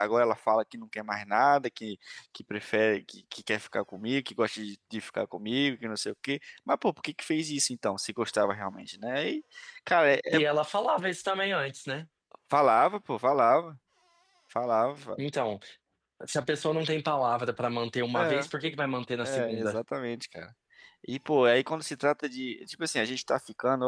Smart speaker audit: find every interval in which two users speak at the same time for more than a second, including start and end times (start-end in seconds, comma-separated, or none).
none